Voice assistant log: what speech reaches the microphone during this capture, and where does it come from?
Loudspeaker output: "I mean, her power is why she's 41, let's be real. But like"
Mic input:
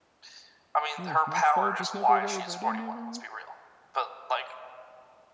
both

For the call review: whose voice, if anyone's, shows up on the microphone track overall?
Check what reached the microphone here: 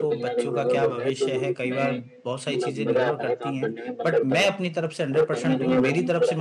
both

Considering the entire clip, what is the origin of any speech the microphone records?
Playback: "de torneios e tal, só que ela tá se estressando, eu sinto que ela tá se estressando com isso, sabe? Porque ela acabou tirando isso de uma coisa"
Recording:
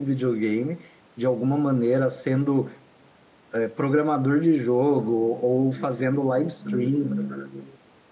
user only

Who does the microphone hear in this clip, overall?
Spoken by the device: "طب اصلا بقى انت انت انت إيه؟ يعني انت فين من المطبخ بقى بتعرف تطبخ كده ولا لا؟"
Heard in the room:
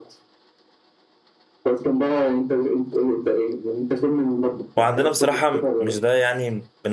both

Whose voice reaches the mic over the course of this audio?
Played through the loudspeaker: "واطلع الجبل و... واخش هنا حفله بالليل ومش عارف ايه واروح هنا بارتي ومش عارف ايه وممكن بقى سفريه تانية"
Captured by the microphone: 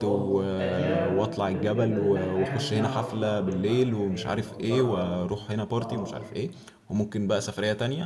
both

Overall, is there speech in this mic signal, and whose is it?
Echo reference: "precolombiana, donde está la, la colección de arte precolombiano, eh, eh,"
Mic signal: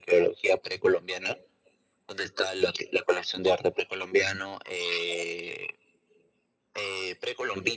echo only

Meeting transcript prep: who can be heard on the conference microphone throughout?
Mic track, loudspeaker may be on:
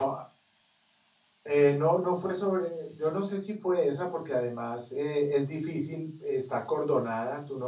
user only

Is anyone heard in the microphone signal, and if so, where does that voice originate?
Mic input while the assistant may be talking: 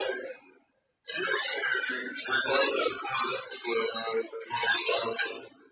echo only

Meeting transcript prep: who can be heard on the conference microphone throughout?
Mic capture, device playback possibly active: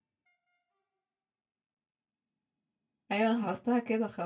user only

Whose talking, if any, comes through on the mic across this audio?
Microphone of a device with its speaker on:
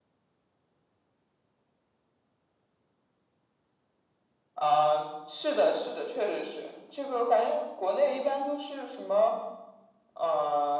echo only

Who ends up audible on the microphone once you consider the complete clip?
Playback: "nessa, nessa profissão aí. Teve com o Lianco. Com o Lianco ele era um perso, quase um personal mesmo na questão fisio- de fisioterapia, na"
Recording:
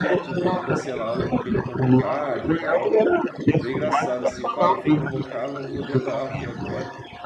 both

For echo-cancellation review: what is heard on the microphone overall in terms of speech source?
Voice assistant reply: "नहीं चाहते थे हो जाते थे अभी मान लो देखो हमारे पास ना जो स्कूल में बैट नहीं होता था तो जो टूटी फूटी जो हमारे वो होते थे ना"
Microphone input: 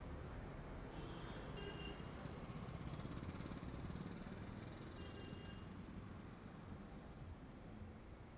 neither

